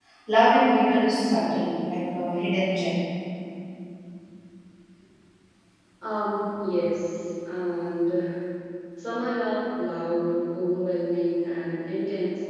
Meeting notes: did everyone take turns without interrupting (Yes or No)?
Yes